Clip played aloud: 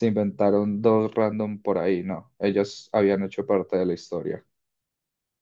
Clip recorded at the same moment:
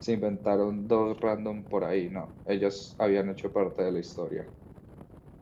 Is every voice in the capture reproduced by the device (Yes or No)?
Yes